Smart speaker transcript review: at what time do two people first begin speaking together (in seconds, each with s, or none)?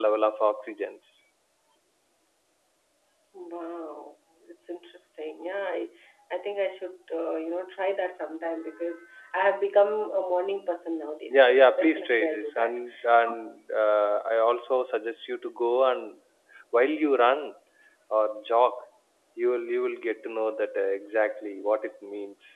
11.3 s